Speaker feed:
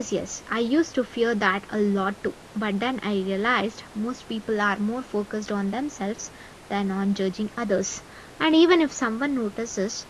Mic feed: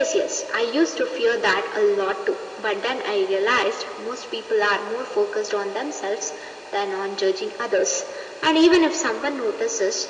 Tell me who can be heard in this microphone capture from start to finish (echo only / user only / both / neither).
echo only